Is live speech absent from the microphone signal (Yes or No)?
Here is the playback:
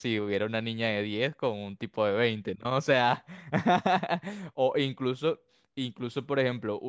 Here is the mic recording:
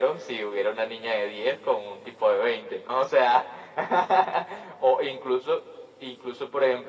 Yes